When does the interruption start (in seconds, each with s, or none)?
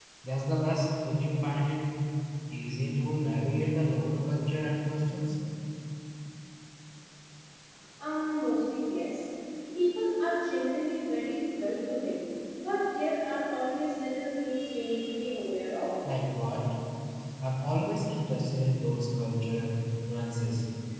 none